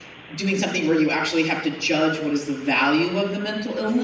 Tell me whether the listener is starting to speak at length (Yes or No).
Yes